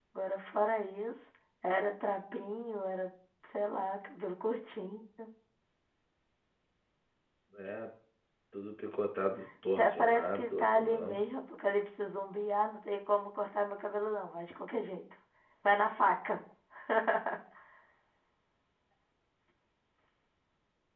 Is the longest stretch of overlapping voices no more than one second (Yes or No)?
No